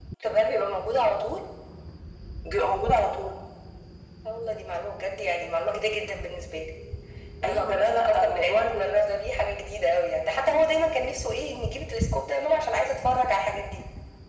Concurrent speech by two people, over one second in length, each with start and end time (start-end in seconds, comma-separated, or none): 7.4-9.0